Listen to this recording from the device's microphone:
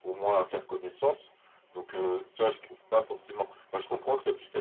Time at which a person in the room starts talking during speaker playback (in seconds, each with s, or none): none